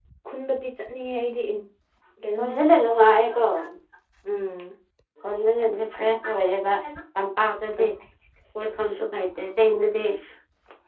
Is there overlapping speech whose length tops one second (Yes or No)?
No